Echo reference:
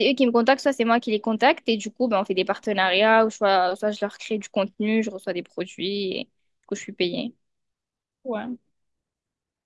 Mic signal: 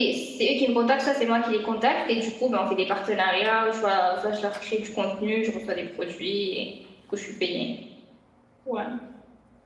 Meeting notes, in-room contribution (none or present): none